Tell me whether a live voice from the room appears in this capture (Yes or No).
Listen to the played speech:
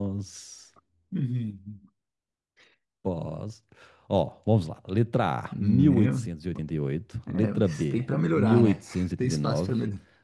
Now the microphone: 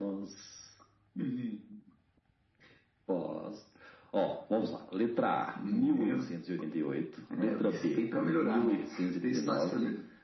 No